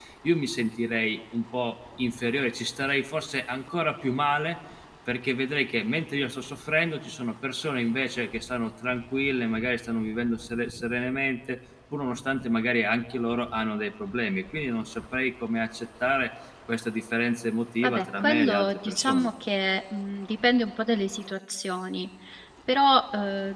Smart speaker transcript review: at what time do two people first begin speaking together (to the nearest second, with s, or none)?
18 s